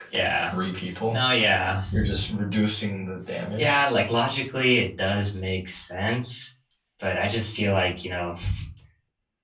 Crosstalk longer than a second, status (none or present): none